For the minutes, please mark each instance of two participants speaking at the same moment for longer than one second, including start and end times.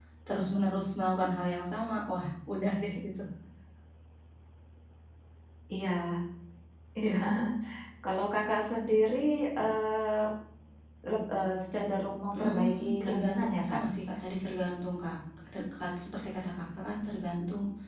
12.3-13.8

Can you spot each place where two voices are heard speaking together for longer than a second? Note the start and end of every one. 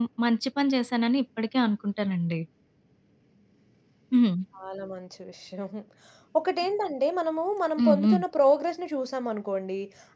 none

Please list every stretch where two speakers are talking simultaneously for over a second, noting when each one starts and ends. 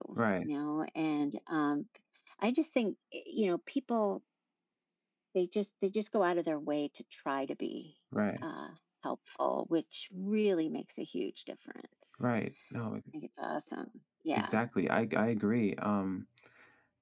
none

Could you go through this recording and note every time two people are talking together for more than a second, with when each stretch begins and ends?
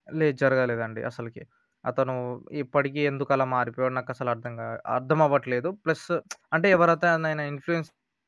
none

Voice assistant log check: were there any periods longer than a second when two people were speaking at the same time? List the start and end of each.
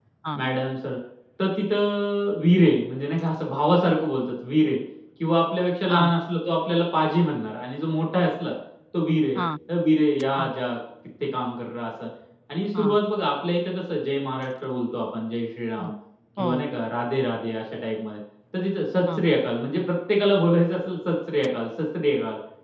none

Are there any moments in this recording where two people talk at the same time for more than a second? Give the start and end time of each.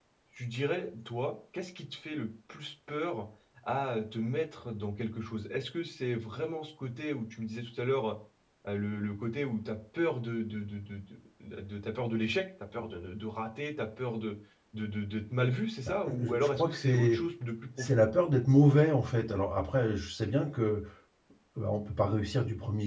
15.8-17.2

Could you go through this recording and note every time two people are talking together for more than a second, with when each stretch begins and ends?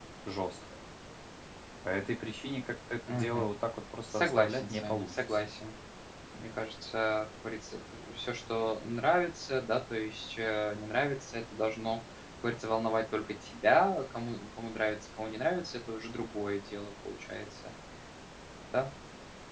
4.1-5.5

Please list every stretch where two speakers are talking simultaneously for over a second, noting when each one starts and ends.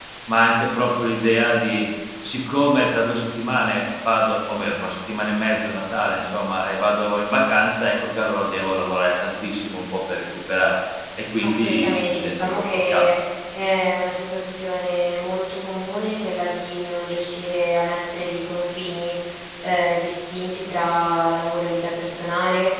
11.4-13.1

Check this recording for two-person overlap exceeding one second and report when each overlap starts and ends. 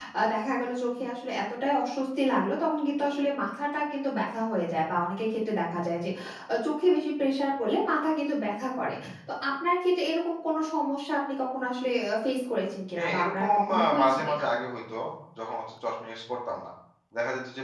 13.0-14.4

